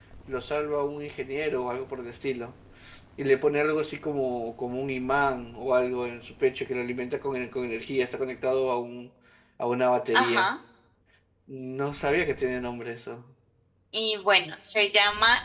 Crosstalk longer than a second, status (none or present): none